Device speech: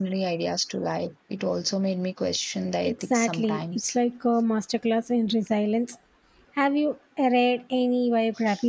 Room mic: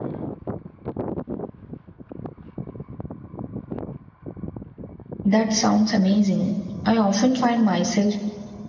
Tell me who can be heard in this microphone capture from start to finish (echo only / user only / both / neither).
user only